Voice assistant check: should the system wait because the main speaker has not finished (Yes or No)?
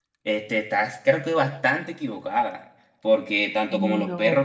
Yes